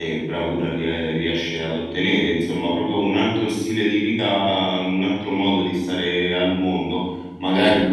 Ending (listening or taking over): listening